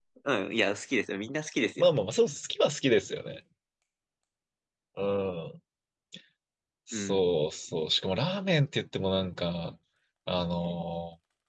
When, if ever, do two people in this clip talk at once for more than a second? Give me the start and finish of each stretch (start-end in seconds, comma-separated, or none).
none